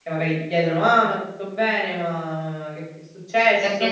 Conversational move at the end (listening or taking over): taking over